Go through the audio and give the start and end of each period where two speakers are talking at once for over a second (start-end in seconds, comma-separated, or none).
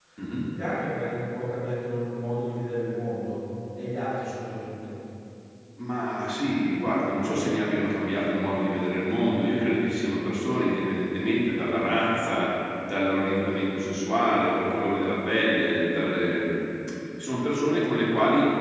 none